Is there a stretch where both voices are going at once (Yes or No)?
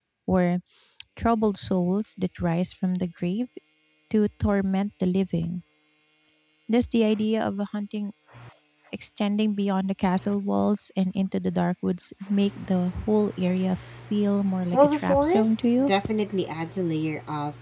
Yes